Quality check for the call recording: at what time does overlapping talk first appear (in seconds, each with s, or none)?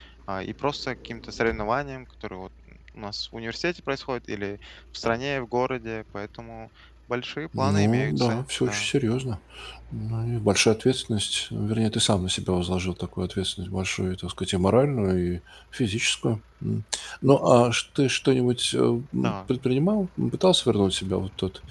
7.6 s